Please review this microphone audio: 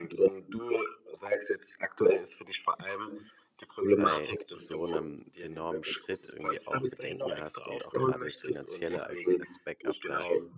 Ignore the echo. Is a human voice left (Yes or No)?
Yes